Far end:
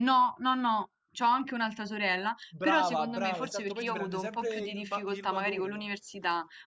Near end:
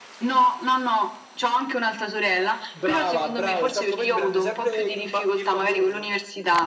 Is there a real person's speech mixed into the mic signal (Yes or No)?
No